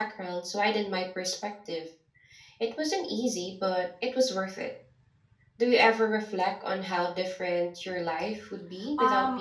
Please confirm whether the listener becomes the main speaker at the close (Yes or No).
Yes